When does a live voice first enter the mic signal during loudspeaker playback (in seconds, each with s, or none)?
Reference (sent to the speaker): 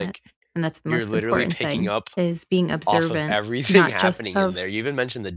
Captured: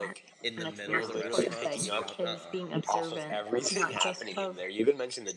0.4 s